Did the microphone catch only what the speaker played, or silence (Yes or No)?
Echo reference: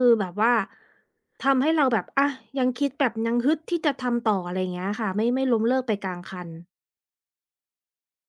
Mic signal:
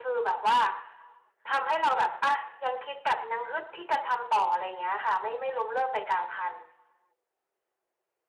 Yes